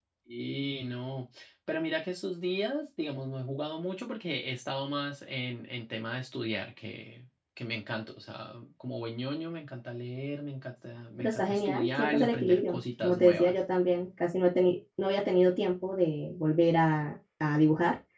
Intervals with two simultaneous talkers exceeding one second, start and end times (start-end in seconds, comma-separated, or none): 11.2-13.5